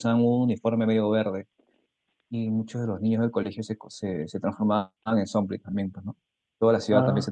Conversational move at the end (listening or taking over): listening